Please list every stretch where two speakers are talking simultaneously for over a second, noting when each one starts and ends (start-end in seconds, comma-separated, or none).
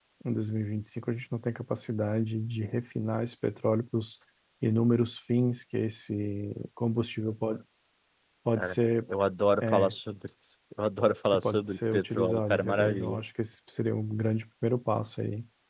11.3-13.2